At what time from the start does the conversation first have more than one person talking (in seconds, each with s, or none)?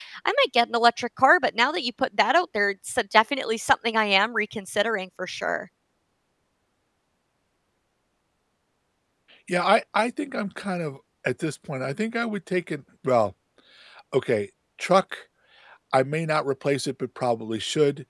none